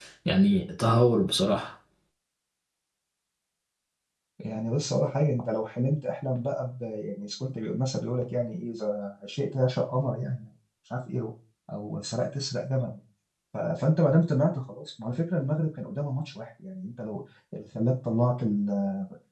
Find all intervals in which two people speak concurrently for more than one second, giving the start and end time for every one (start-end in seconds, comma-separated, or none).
none